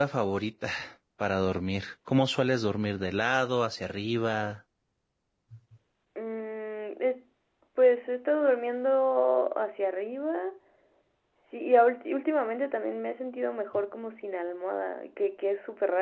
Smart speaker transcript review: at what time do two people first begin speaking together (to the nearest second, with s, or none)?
none